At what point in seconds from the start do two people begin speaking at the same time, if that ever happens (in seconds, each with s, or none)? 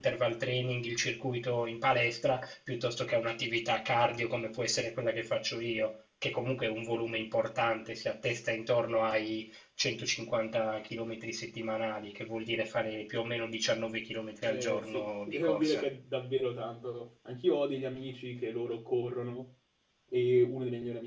14.5 s